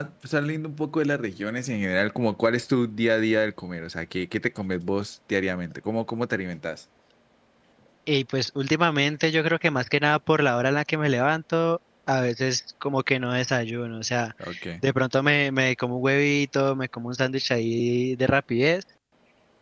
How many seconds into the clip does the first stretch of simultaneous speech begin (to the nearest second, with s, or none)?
none